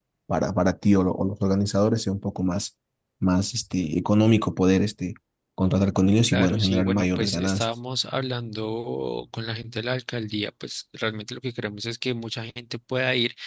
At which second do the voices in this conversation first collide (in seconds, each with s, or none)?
6.3 s